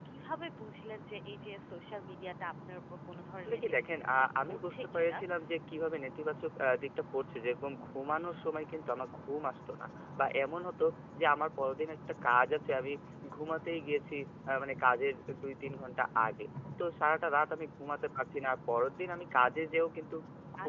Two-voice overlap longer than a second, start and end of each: 3.4-5.2

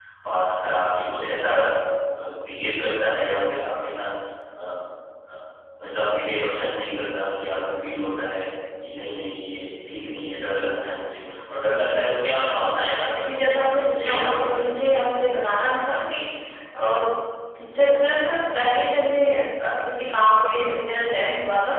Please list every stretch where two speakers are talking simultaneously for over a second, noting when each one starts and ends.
13.2-14.7

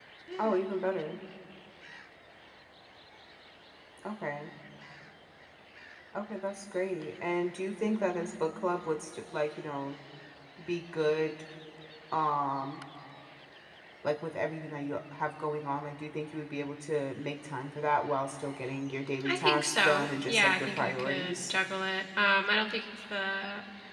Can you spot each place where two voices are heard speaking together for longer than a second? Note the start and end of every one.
19.2-21.5

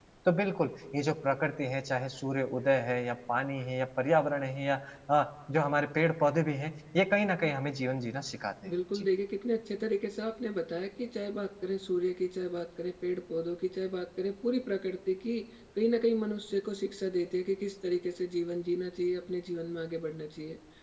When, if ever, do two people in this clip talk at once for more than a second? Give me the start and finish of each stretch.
none

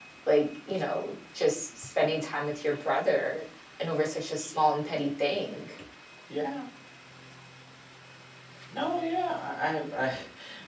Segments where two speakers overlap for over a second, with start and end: none

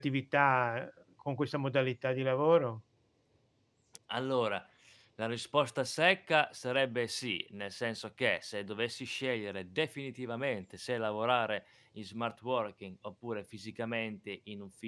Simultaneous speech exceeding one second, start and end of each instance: none

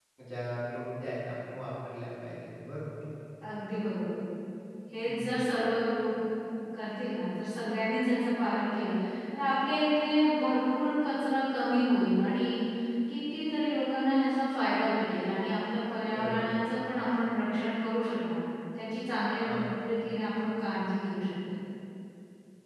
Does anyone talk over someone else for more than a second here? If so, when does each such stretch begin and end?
none

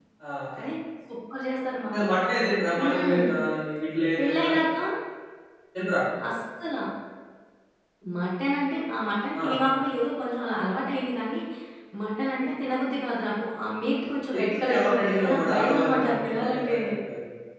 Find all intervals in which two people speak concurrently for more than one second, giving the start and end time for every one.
14.4-16.9

